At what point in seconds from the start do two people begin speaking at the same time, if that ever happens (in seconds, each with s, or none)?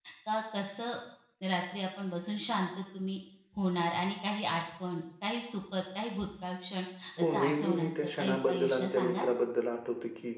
7.2 s